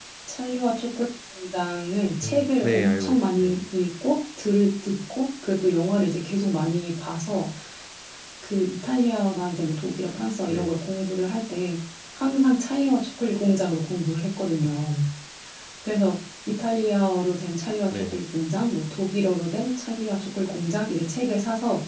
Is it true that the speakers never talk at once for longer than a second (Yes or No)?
No